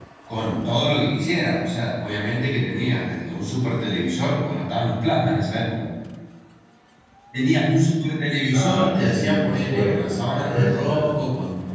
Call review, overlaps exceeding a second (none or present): present